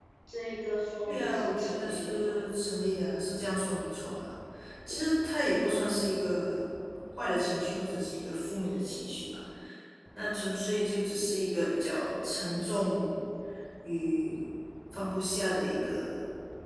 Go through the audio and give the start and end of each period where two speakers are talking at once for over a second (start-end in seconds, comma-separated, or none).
1.0-2.4